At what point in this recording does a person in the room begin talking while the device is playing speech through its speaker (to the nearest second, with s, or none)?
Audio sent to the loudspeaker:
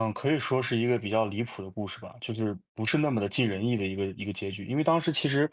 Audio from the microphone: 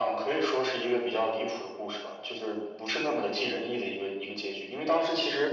none